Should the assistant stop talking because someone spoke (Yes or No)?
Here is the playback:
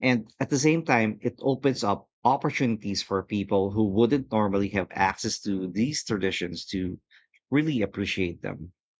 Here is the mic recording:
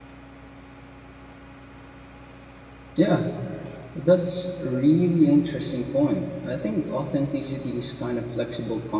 Yes